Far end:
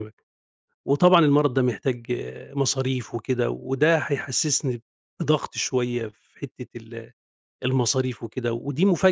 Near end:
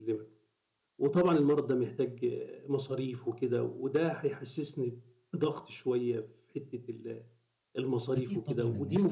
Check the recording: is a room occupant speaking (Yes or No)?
Yes